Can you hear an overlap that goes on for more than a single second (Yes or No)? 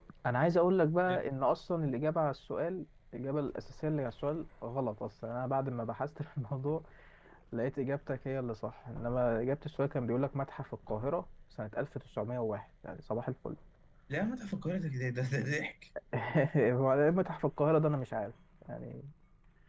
No